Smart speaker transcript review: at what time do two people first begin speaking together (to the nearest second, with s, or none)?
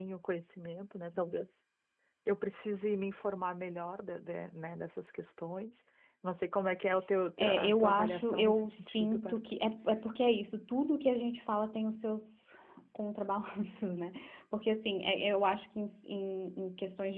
7 s